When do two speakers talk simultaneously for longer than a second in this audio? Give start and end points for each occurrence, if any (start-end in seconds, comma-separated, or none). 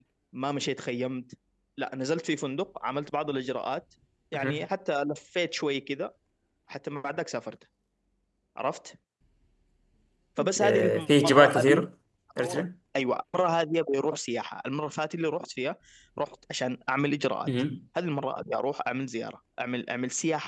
10.4-11.8